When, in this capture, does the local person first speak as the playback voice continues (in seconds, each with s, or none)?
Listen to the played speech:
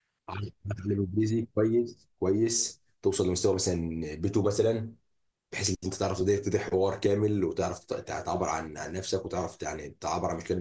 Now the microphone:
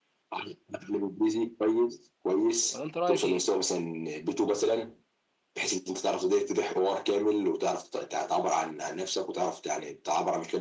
2.7 s